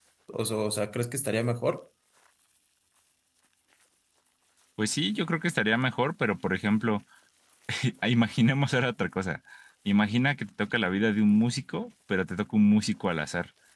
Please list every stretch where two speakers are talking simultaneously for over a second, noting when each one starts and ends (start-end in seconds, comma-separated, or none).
none